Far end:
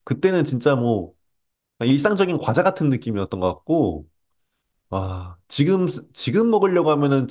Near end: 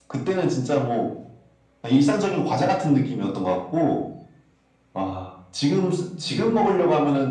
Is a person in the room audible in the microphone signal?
No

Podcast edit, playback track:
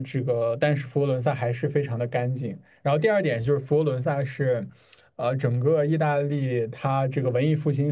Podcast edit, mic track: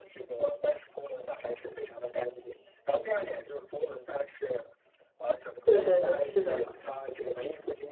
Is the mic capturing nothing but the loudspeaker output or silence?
No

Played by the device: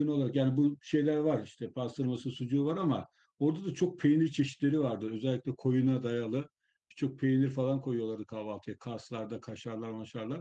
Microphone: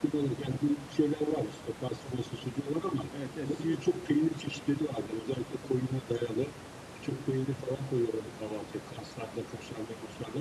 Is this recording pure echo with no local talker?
No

